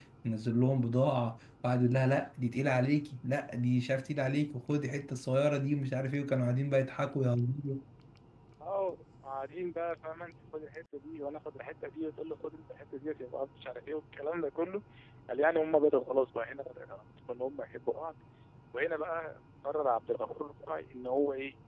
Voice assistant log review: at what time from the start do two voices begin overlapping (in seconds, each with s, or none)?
none